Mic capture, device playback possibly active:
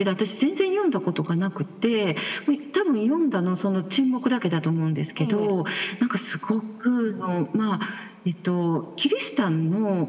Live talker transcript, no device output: ええ。

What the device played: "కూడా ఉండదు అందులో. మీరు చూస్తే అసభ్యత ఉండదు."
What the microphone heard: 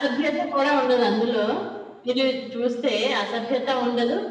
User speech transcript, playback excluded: none

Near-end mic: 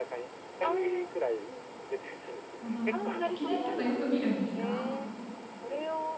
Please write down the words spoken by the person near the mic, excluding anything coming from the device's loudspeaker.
ほど。駅伝とかよく見るんですか？

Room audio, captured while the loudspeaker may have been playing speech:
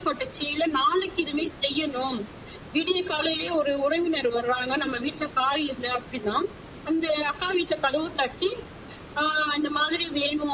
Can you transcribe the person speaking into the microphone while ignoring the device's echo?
none

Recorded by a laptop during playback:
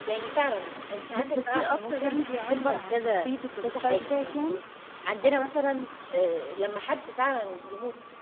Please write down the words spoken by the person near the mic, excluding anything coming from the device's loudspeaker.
بتحسيه أكتر يعني بيعبّر عن شخصيتِك والstyle بتاعِك يعني؟

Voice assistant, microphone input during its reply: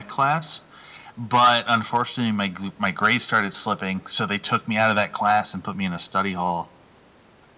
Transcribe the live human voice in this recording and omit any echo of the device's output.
none

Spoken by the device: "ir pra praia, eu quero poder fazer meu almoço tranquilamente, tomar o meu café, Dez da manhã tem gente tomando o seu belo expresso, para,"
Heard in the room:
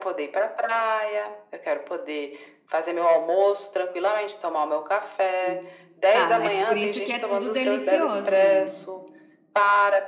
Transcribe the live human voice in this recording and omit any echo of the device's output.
Sim. Ah, mas por isso que é tudo delicioso, né?

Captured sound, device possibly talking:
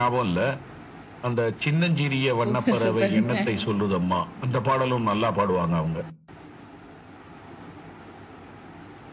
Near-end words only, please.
சூப்பர், சூப்பருங்க.

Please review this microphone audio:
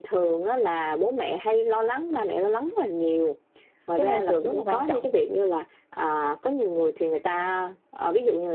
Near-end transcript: cái môi trường rất là quan trọng,

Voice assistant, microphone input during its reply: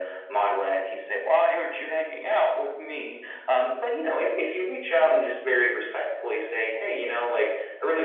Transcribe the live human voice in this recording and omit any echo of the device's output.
none

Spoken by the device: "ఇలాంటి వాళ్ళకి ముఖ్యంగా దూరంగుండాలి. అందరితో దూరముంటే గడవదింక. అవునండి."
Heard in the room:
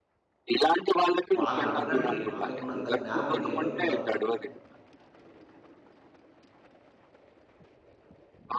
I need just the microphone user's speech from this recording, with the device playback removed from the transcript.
వాళ్ళనడగండి. వాళ్ళకున్నంత జ్ఞానం ఇంకెవ్వరికుండదు.

